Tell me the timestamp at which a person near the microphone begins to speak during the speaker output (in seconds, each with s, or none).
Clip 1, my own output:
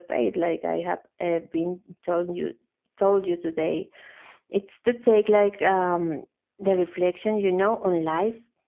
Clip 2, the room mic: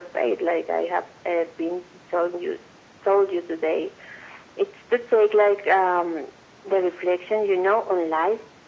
none